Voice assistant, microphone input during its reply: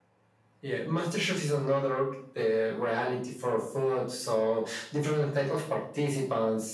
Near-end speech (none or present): none